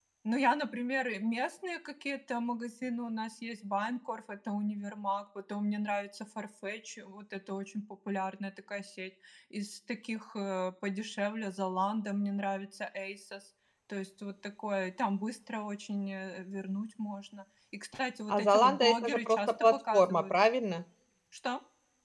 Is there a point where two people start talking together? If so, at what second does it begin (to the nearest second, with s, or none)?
18 s